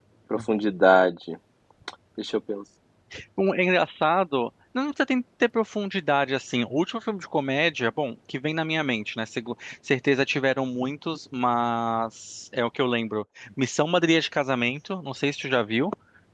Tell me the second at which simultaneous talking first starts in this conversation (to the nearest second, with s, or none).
none